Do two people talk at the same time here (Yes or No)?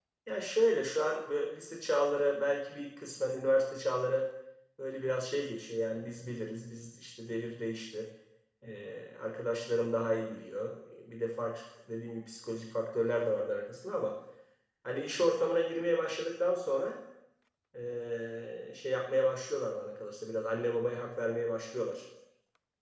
No